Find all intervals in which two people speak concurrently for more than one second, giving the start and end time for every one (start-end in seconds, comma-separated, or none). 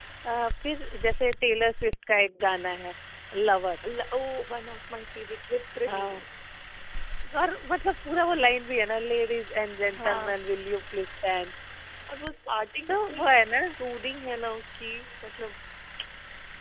none